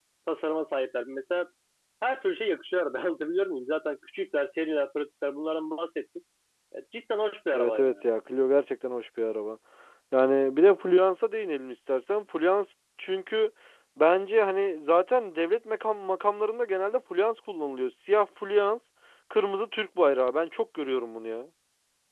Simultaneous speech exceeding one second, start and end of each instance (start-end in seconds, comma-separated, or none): none